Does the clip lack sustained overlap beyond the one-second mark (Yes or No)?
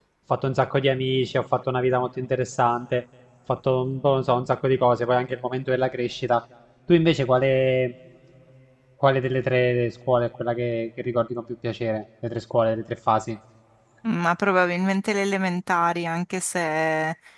Yes